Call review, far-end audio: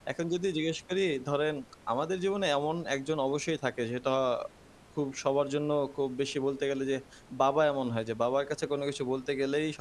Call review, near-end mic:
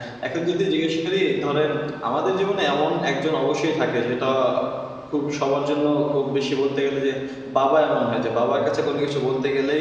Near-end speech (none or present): none